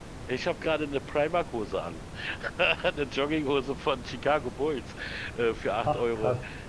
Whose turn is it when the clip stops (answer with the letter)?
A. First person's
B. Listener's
A